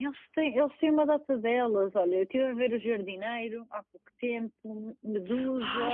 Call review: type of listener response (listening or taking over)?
taking over